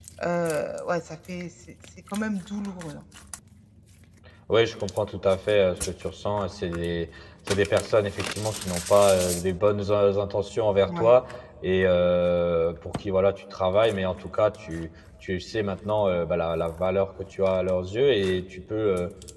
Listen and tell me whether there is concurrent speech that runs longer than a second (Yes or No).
No